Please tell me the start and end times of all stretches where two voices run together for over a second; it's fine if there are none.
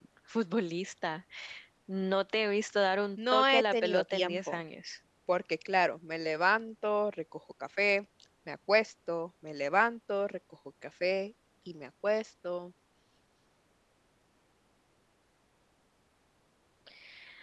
3.3-4.6

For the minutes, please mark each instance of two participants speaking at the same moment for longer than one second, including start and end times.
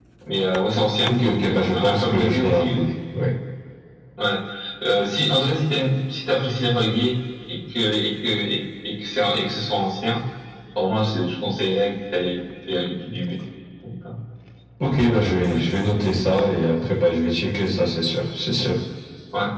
1.5-2.8

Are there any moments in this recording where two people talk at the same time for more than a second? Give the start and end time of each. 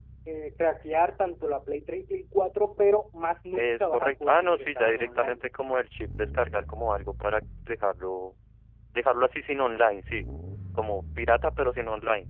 3.6-5.4

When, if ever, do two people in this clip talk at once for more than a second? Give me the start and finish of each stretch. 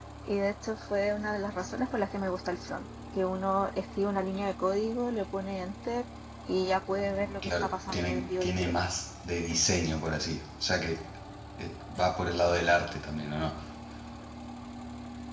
7.2-8.7

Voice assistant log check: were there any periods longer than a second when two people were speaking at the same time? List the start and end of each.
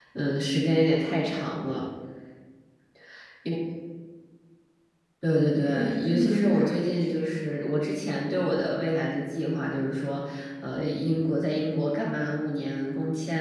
5.7-7.3

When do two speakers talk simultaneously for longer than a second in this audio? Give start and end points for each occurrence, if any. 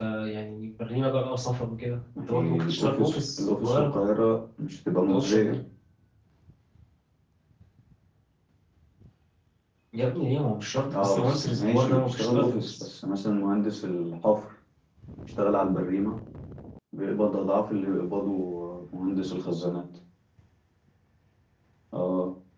2.2-3.9, 10.9-12.8

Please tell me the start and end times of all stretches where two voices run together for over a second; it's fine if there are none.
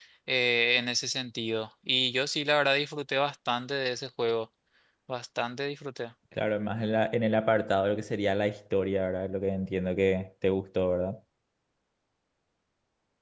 none

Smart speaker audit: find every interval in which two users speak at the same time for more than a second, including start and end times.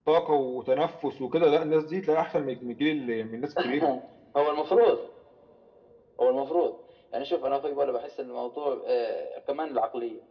none

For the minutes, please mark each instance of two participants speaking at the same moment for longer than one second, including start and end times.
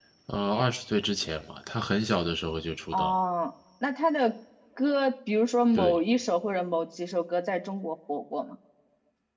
none

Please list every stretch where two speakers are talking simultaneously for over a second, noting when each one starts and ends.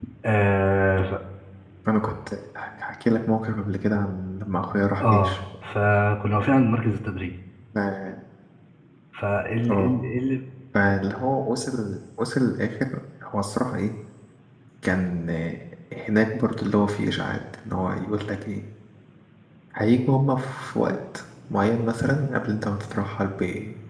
none

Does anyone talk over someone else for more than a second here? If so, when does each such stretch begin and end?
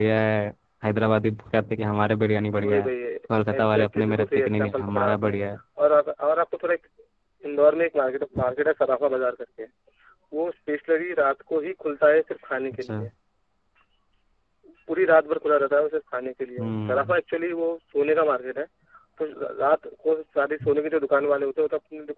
3.5-5.4

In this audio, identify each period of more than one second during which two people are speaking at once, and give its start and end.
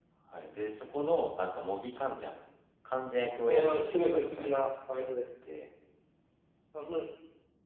3.5-5.1

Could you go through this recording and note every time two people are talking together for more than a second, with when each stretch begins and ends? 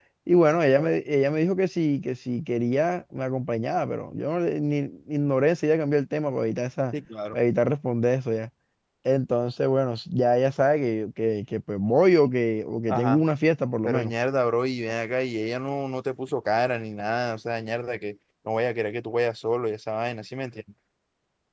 none

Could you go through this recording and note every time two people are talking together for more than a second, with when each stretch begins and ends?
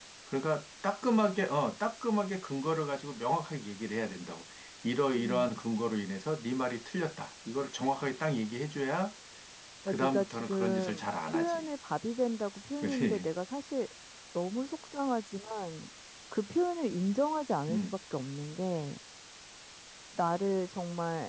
9.9-11.7

